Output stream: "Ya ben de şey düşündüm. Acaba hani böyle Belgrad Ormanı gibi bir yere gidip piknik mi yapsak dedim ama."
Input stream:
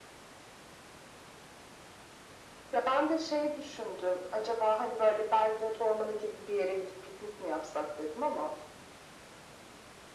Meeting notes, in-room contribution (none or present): none